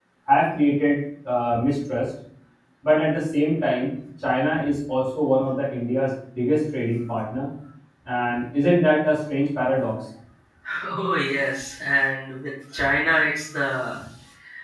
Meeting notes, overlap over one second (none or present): none